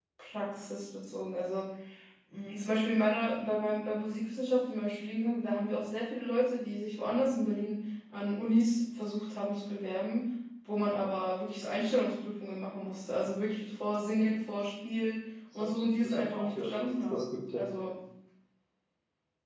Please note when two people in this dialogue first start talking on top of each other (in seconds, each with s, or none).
15.6 s